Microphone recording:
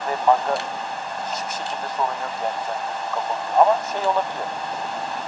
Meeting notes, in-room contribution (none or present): none